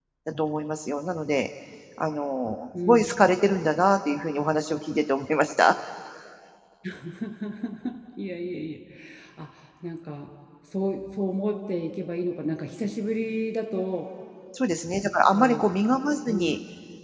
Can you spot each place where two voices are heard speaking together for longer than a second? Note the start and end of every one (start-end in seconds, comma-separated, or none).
none